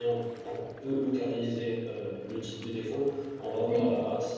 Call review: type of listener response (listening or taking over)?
listening